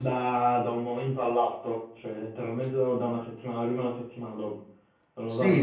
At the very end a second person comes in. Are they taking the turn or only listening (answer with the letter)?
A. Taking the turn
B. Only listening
A